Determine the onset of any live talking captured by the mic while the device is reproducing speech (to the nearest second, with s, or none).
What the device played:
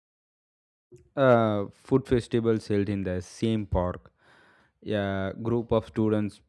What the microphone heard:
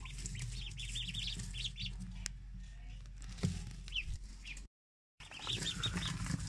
none